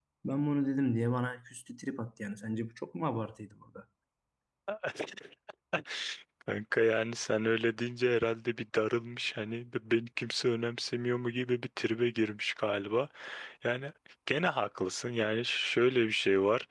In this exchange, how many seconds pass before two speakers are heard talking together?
none

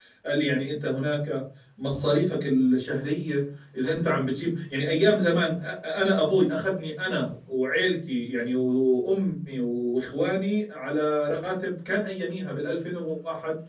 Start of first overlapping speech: none

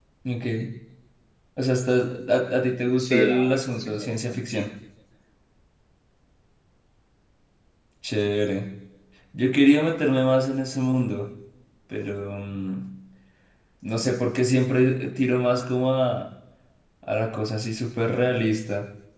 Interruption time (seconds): 3.0 s

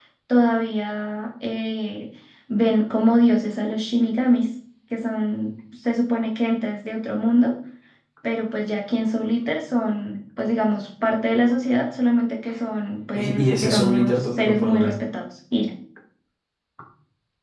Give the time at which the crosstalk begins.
13.1 s

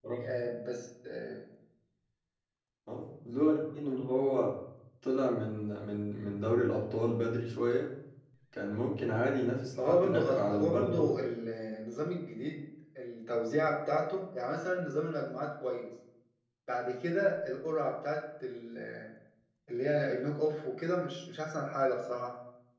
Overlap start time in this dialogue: 9.8 s

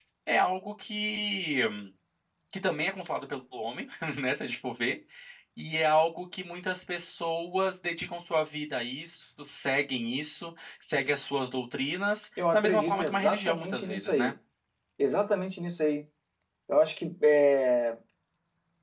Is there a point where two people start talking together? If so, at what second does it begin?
12.4 s

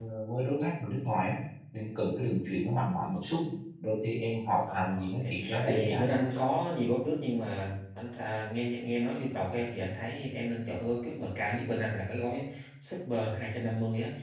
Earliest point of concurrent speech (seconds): 4.7 s

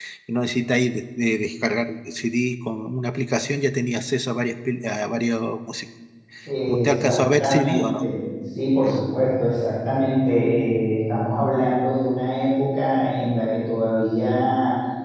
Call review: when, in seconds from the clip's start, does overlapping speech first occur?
6.7 s

